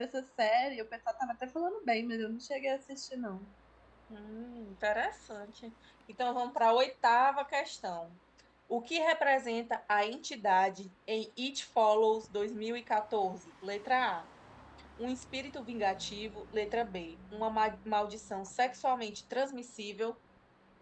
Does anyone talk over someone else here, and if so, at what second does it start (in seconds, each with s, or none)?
none